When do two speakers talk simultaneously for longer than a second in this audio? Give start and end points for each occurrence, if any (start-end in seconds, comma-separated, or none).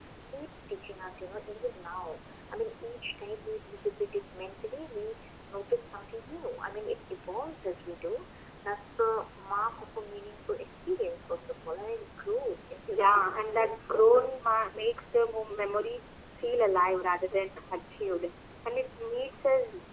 12.9-14.2